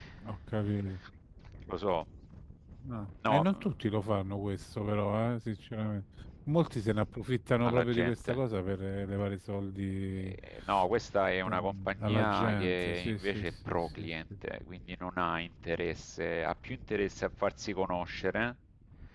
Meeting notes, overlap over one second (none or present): present